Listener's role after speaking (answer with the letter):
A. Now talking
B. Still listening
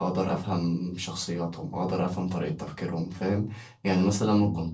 B